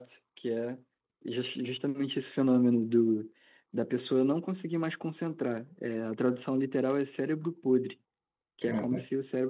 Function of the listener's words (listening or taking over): listening